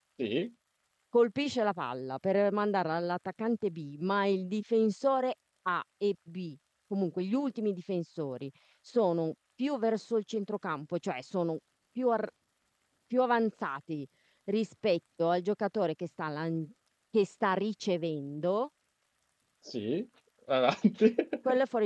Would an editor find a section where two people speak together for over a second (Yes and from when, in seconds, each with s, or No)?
No